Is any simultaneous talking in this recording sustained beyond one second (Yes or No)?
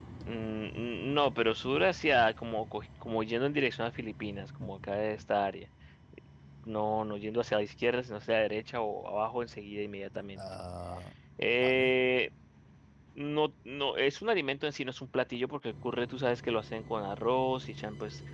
No